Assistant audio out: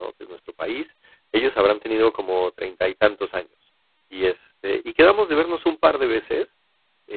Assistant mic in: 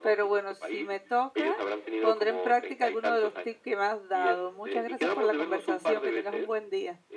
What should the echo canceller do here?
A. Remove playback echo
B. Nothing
A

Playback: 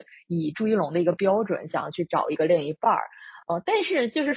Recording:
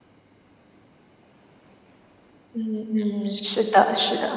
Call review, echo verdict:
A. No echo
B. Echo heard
A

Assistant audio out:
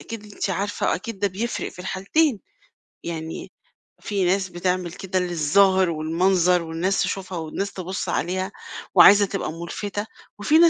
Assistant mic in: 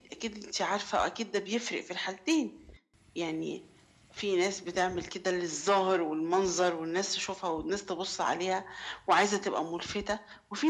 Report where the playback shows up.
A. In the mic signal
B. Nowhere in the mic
A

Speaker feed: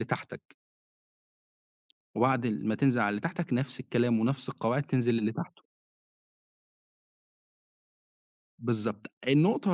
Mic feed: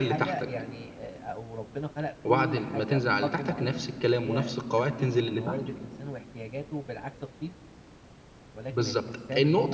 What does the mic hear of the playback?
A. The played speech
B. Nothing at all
A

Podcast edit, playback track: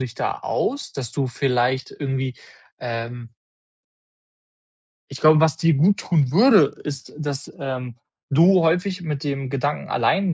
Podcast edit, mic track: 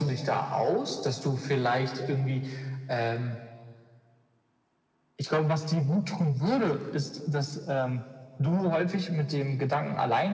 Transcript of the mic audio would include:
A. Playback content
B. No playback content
A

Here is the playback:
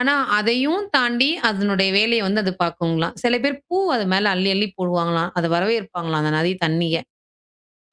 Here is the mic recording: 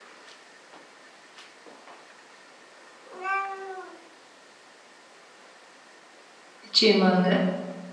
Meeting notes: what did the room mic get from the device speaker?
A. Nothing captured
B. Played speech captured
A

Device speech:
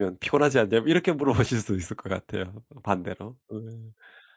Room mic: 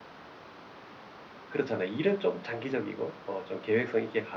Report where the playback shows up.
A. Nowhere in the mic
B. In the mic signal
A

